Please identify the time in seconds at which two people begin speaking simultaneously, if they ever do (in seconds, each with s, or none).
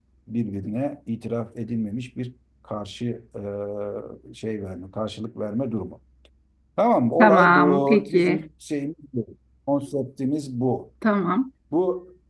7.2 s